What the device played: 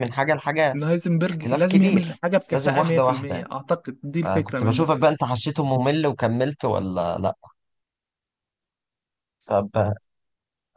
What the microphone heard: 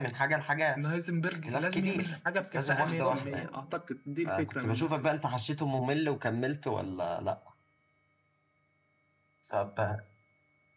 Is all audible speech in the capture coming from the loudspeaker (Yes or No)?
No